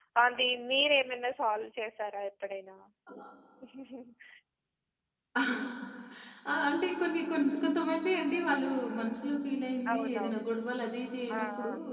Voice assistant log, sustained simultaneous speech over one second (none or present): none